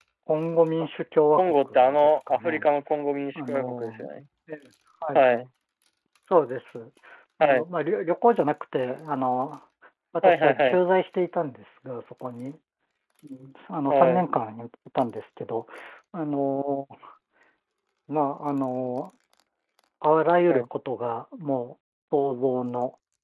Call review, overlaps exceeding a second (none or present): present